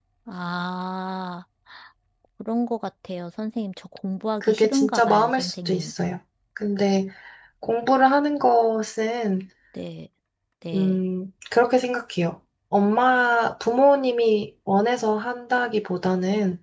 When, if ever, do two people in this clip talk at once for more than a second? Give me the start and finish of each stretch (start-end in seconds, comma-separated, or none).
4.4-5.9